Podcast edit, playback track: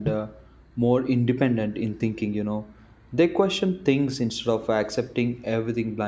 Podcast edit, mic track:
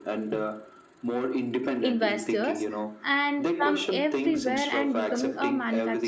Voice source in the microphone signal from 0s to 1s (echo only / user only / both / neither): echo only